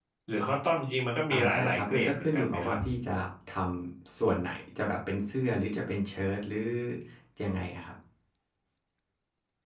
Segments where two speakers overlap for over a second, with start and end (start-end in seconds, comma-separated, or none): 1.3-2.7